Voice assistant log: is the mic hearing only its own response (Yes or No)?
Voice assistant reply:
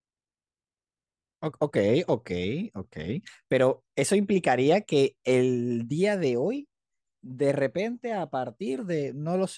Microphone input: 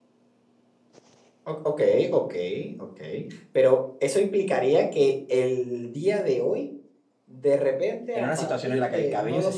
No